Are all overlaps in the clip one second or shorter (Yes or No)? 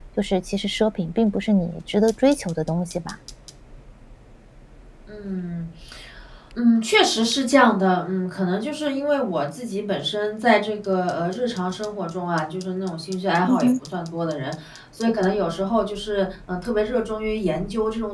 Yes